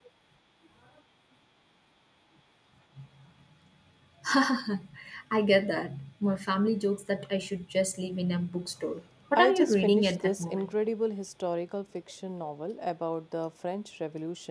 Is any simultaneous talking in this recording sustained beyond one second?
Yes, from 9.3 s

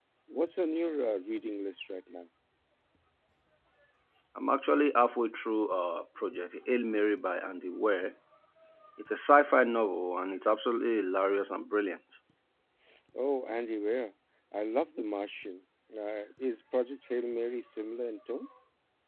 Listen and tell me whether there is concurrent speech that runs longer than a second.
No

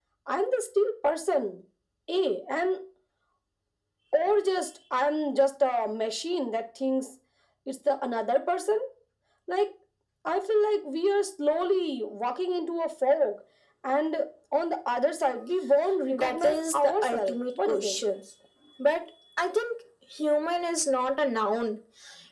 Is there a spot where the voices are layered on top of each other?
Yes, from 16.1 s

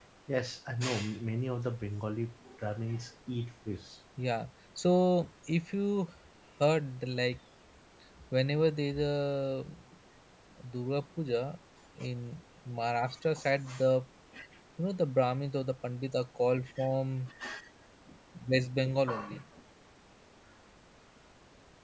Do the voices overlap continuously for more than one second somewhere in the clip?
No

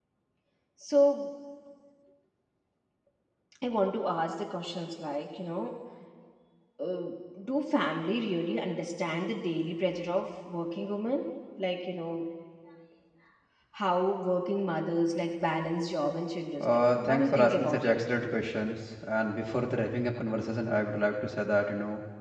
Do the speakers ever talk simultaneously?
Yes, from 16.6 s

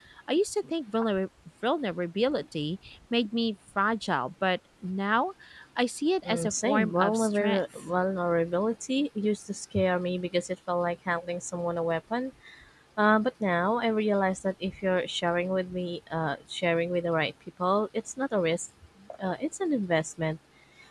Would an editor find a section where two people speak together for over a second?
Yes, from 6.2 s

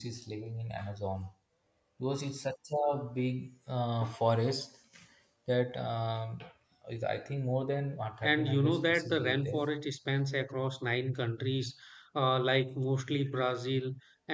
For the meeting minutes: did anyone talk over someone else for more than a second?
Yes, from 8.2 s

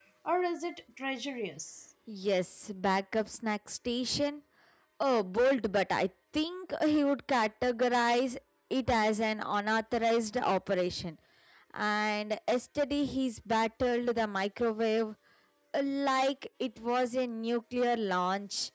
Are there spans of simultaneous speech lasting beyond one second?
No

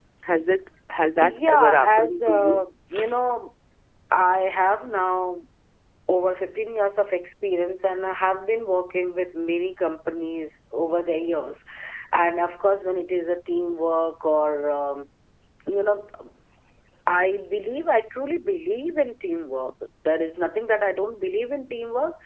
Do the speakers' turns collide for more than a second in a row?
Yes, from 1.2 s

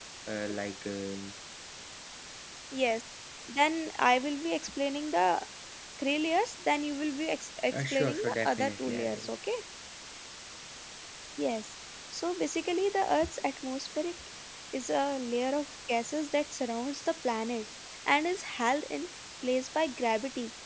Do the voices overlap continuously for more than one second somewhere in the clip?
Yes, from 7.7 s

